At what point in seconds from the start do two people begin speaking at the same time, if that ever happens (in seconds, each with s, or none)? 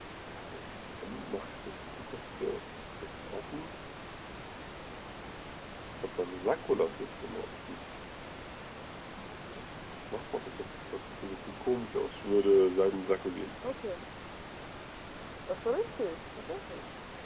none